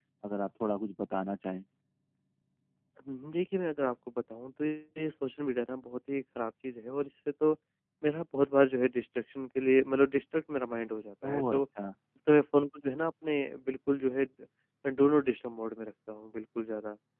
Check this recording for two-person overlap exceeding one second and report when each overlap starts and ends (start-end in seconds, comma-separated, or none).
none